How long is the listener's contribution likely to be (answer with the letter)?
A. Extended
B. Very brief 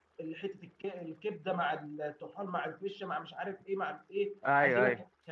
B